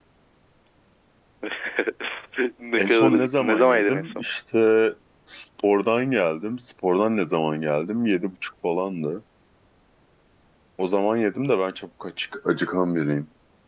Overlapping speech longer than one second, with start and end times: 2.8-4.2

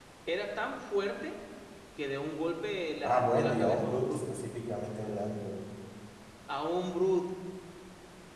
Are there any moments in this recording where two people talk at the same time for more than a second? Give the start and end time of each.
3.0-4.2

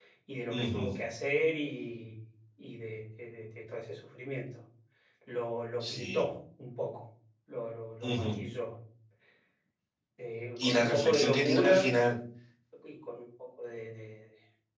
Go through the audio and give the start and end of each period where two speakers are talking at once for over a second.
10.6-12.0

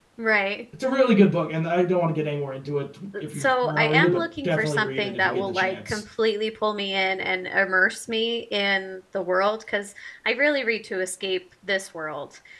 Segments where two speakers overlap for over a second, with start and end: 3.3-6.0

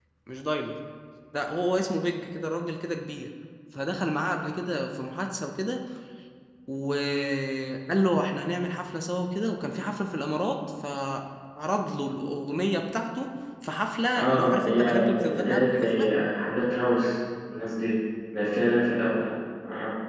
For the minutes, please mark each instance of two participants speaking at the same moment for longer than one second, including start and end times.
14.1-16.1

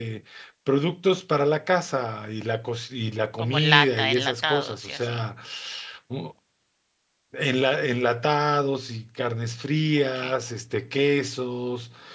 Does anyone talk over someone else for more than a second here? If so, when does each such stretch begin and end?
3.4-5.2

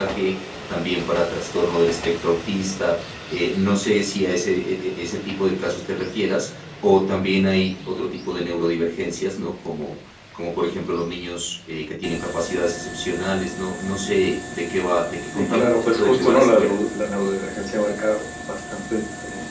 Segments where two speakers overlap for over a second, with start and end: 15.3-16.8

